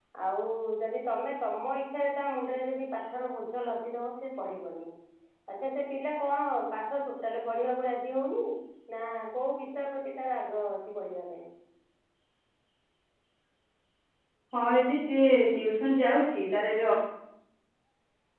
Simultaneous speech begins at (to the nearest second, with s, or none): none